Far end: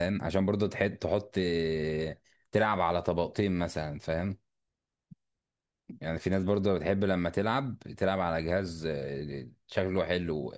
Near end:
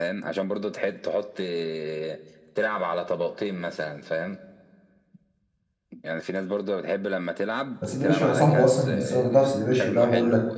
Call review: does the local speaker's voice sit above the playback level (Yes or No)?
Yes